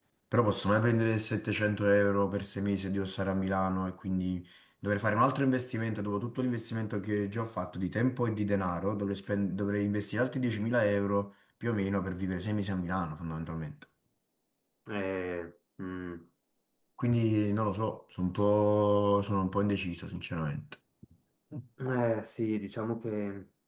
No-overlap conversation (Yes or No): Yes